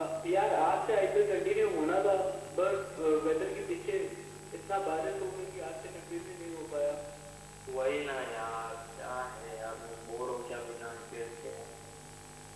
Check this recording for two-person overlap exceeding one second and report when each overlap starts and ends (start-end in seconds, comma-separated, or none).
none